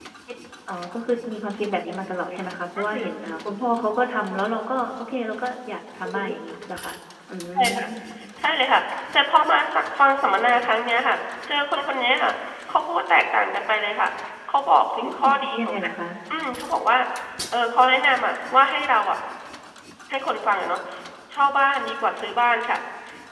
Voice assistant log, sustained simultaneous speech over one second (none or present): none